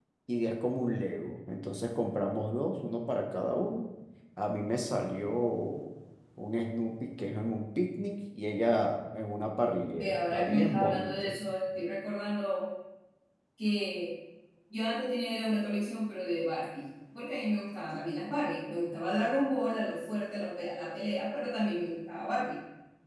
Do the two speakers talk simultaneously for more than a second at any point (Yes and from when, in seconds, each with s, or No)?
Yes, from 9.9 s